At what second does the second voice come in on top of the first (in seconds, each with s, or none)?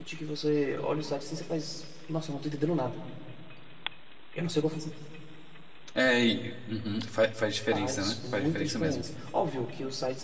7.7 s